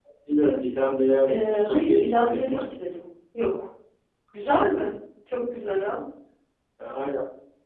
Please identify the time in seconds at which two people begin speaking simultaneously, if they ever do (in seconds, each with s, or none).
1.2 s